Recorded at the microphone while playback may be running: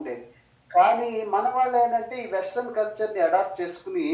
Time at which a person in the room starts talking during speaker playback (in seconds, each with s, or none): none